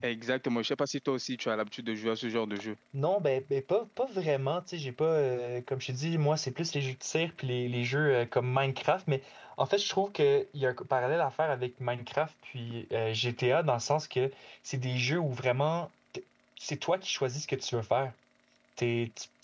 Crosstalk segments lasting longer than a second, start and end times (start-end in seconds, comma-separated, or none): none